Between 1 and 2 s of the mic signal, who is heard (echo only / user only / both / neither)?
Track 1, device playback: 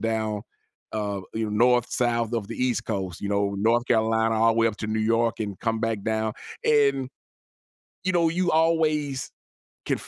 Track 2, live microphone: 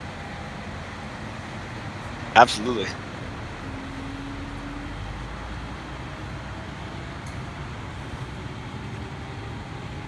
neither